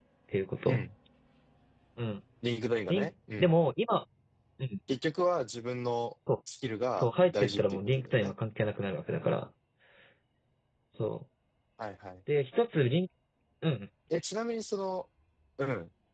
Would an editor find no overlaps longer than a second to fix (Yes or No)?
No